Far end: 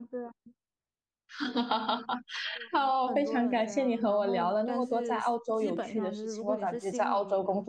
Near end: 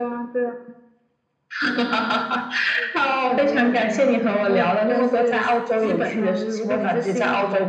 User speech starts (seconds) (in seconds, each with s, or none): none